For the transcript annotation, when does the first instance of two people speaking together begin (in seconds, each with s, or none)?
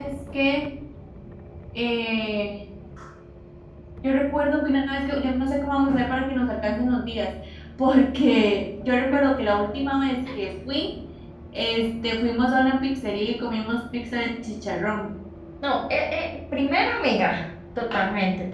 none